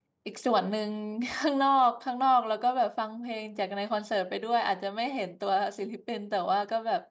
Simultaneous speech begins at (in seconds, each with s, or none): none